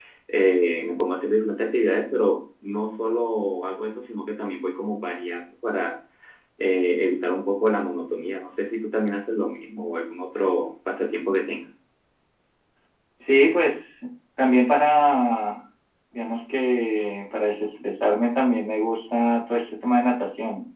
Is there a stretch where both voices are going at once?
No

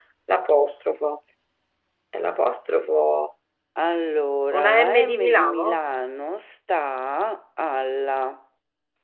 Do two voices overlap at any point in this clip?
Yes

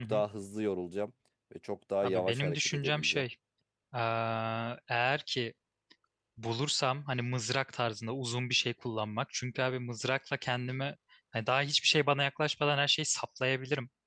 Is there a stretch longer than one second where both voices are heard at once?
Yes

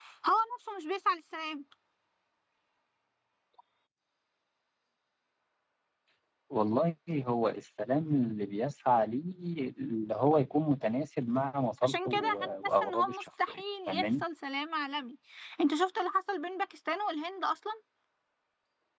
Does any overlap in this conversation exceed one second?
Yes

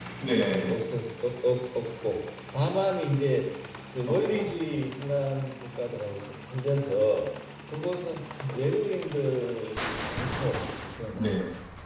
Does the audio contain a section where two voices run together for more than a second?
No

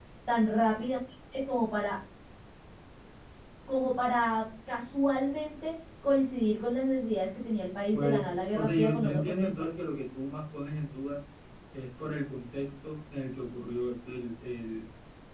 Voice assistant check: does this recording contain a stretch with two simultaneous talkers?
Yes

